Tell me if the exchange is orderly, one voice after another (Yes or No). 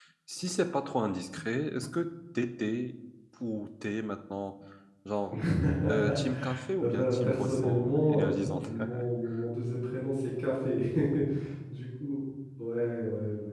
No